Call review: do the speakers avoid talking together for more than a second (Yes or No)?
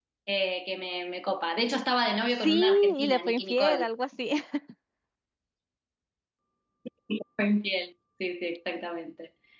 No